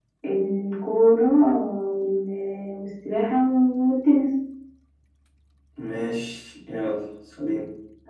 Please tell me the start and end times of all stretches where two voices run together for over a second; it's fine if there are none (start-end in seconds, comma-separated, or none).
none